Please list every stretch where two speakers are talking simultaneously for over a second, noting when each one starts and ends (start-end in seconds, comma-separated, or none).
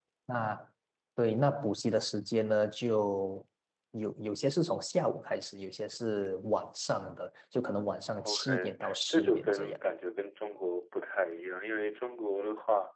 8.2-9.8